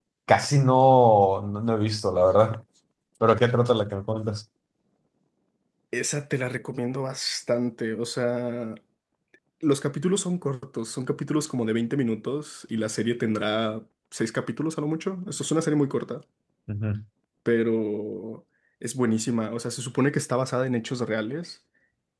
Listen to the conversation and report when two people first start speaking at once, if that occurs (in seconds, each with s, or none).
none